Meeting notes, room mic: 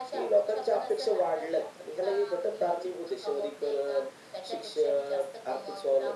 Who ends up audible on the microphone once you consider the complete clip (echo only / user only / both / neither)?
echo only